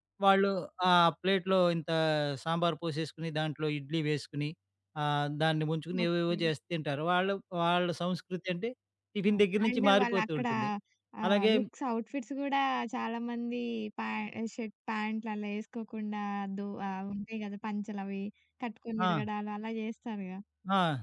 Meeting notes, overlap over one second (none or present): present